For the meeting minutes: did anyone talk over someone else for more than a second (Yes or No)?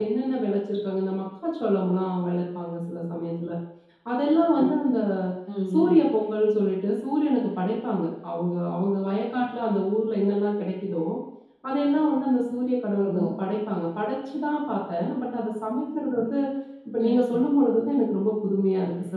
No